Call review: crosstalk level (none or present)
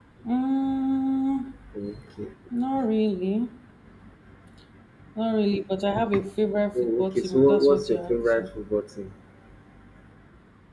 present